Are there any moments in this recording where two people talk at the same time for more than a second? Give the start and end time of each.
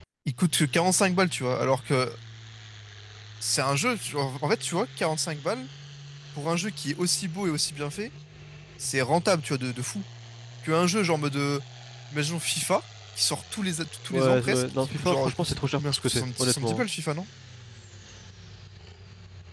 14.1-16.8

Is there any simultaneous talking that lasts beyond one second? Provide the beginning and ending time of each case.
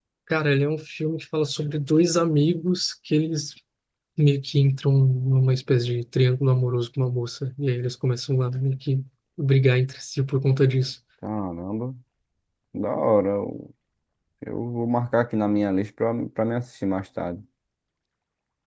none

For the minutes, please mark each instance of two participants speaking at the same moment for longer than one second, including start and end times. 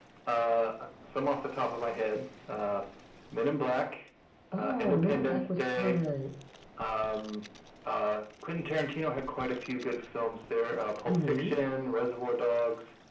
4.6-6.0

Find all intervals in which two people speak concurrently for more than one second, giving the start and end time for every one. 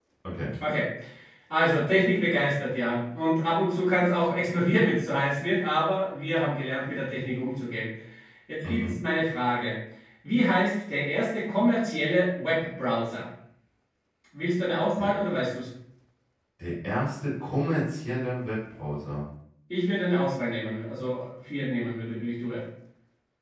none

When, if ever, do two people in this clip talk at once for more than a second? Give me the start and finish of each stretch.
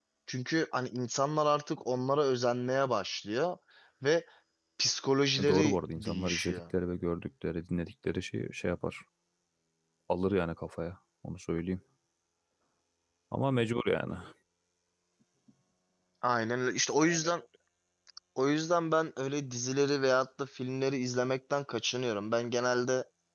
5.4-6.6

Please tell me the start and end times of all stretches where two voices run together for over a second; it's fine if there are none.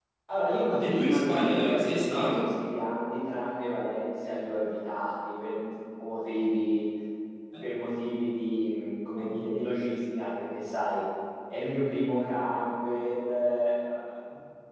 0.8-2.4

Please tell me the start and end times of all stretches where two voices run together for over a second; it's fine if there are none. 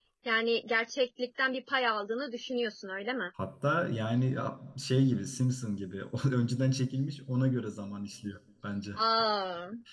none

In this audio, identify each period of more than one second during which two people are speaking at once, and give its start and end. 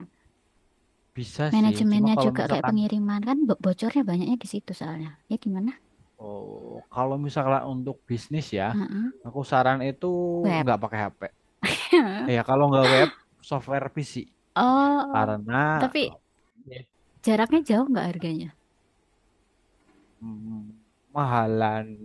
1.5-2.8

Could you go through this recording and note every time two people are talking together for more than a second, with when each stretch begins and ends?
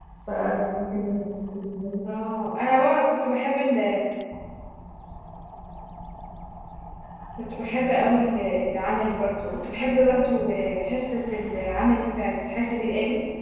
none

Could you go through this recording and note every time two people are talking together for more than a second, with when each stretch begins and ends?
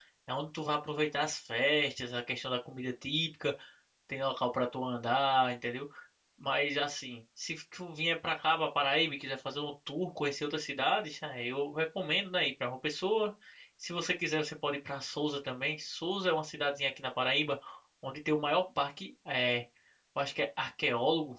none

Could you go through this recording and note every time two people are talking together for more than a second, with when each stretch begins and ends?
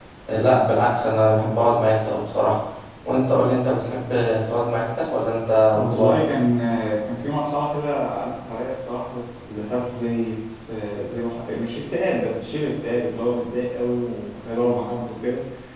none

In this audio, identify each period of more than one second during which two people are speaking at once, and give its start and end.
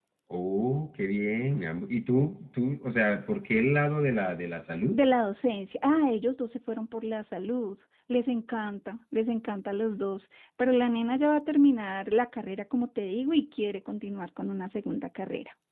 none

